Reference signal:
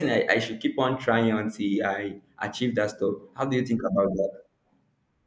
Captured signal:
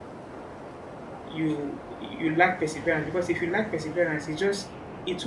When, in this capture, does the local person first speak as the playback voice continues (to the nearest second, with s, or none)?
1 s